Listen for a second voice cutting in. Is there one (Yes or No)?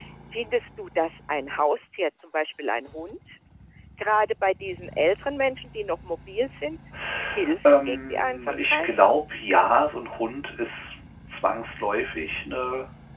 Yes